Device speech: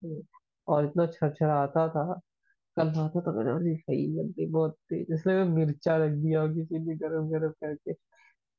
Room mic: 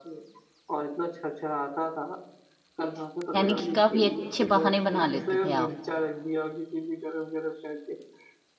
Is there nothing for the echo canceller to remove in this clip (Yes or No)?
No